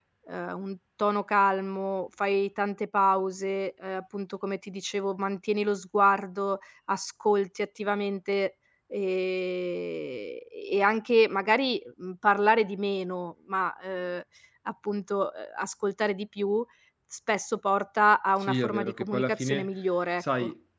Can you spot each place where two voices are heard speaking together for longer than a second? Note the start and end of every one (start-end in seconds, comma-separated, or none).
18.4-19.7